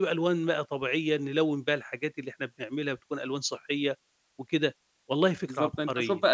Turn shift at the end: Yes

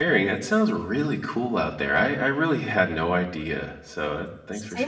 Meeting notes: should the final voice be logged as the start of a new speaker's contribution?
Yes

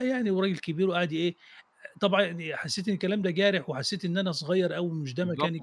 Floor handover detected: Yes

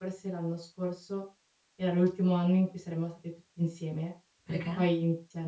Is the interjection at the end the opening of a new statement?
No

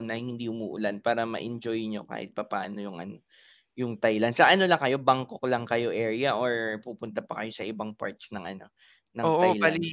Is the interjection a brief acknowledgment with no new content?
No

